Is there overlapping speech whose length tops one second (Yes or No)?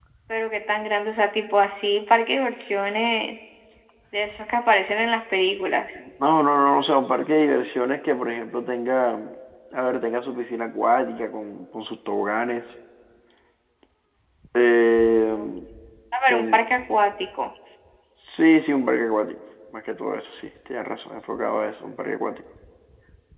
No